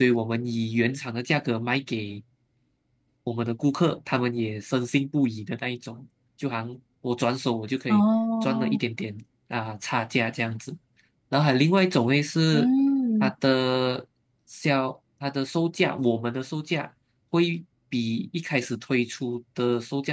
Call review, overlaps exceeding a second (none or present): none